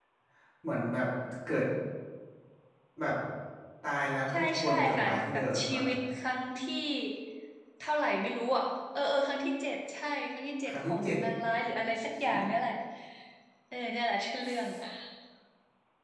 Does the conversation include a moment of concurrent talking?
Yes, from 4.3 s

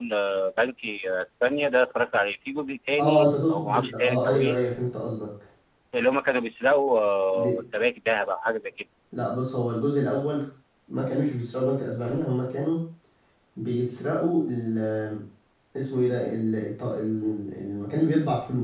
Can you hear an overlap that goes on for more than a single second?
Yes, from 3.0 s

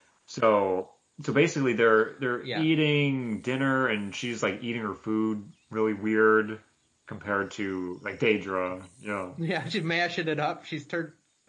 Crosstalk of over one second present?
No

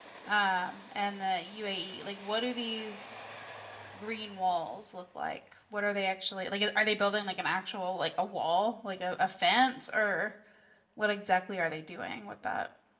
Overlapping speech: No

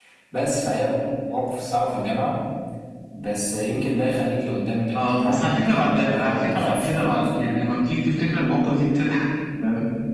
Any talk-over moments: Yes, from 4.9 s

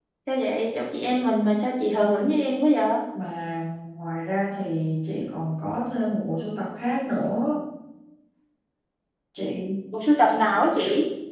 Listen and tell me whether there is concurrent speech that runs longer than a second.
No

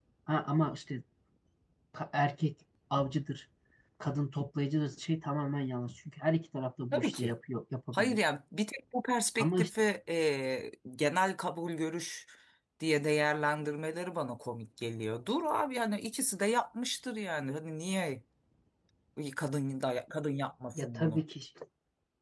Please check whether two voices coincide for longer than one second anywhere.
No

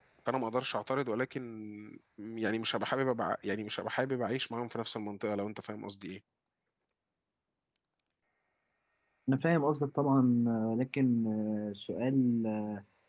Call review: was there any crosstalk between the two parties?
No

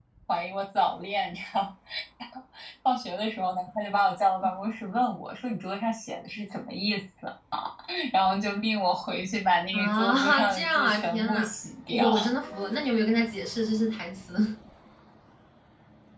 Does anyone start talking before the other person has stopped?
Yes, from 9.7 s

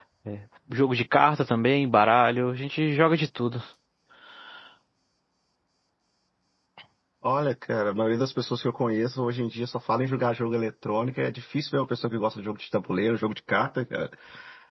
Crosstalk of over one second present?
No

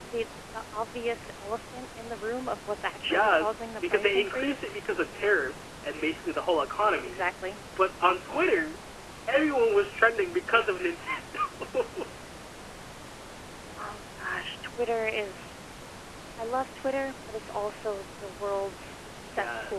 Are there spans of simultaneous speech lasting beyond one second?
Yes, from 3.0 s

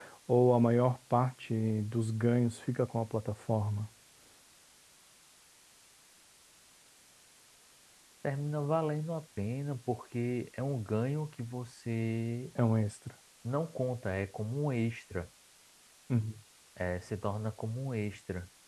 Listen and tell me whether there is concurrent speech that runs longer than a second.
No

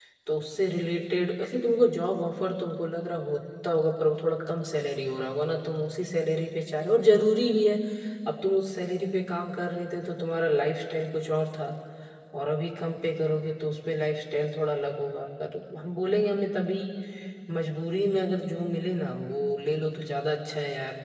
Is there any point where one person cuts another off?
No

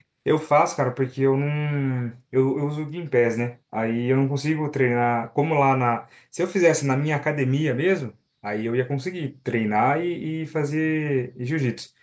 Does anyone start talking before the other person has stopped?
No

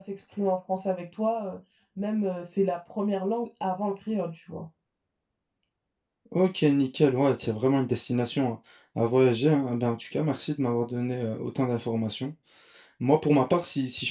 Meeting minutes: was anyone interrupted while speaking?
No

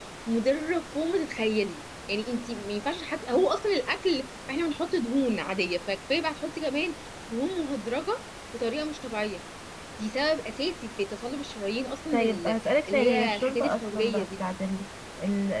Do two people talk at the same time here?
Yes, from 12.1 s

